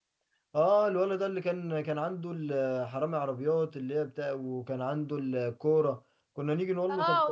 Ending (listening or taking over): taking over